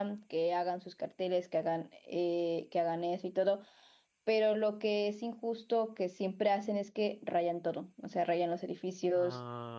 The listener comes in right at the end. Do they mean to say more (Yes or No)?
No